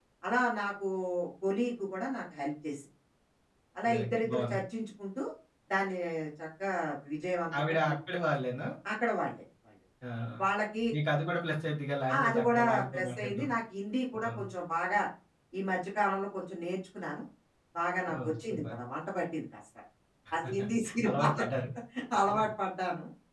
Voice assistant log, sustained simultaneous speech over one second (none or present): present